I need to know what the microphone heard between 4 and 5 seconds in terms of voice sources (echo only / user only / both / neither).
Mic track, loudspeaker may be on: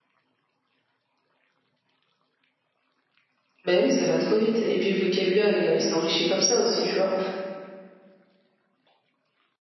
user only